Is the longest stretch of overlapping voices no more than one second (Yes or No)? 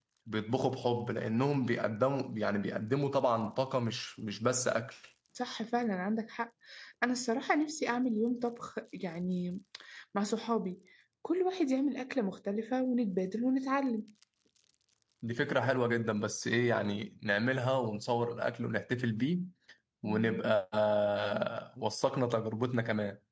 Yes